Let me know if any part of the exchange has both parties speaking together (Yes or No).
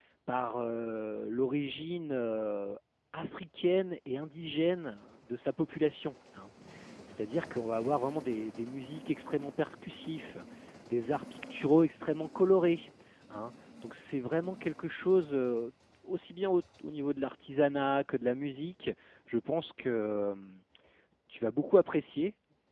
No